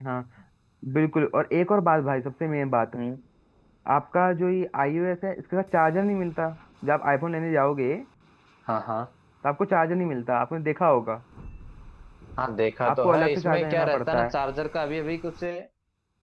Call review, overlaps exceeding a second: present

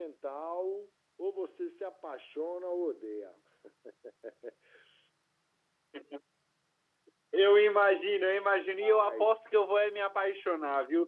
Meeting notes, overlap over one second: none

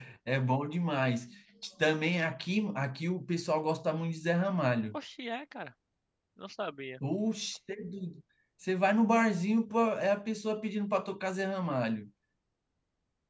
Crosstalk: none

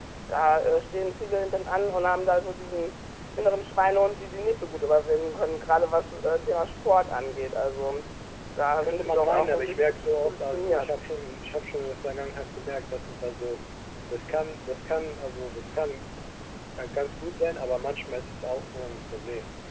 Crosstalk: present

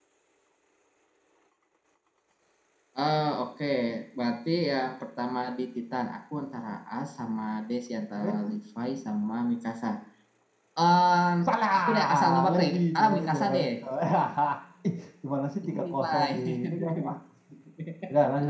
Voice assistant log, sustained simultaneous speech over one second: present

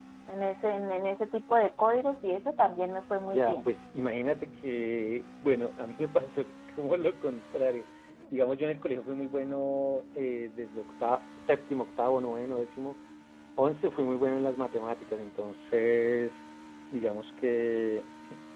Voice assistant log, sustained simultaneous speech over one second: none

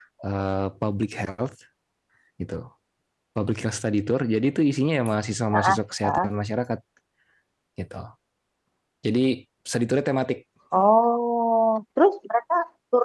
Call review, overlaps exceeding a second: none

